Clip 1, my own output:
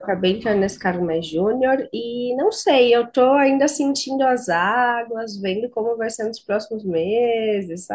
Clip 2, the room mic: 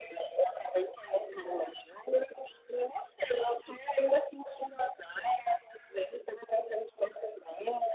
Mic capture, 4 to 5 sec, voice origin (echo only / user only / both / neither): echo only